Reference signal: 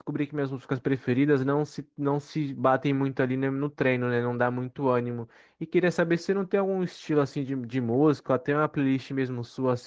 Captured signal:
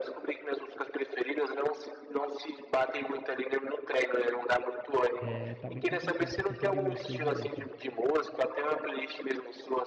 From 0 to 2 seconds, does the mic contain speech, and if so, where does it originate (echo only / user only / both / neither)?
echo only